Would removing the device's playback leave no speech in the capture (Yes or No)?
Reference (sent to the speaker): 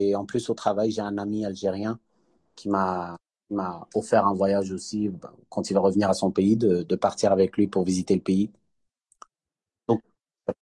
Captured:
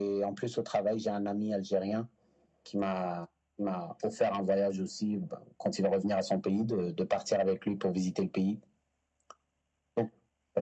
Yes